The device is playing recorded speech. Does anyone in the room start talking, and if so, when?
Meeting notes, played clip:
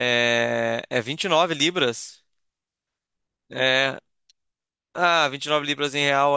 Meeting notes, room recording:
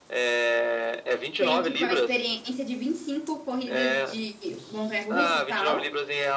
1.4 s

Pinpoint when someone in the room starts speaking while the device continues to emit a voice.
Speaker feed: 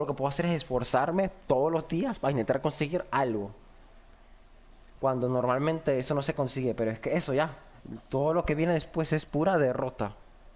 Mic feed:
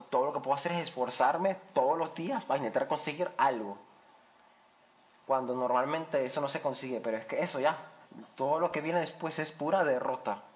none

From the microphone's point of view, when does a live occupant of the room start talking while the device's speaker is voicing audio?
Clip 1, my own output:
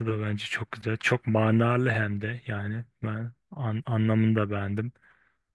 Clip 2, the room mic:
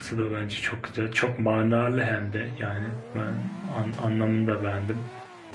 3.2 s

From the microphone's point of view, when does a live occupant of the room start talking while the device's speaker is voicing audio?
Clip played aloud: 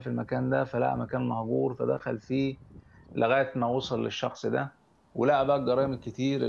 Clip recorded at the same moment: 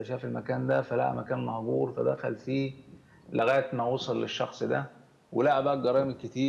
none

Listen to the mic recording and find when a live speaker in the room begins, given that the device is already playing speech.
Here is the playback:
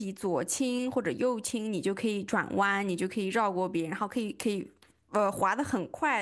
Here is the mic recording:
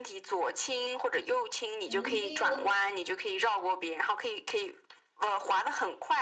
1.9 s

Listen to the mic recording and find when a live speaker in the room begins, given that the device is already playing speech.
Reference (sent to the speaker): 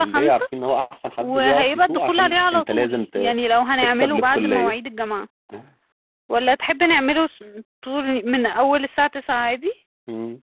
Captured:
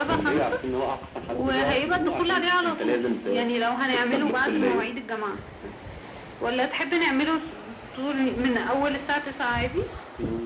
none

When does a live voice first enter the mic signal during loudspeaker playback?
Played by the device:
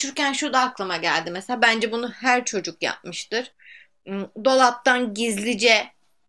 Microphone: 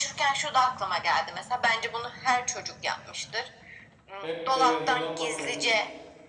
4.2 s

